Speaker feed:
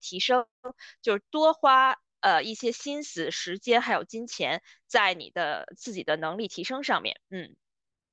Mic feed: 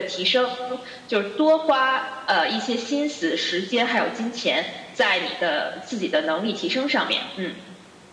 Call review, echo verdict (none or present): present